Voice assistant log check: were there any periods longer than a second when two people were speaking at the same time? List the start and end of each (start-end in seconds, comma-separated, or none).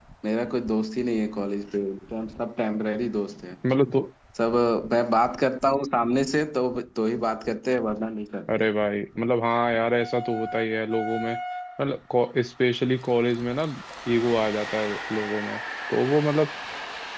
none